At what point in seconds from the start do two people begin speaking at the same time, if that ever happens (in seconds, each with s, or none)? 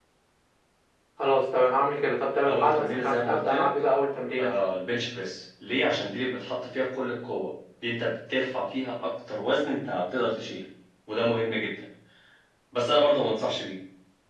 2.4 s